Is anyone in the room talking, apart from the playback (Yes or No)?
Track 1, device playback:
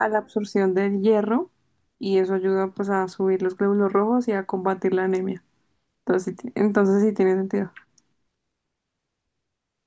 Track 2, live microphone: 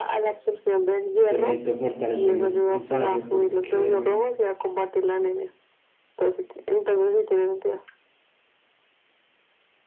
Yes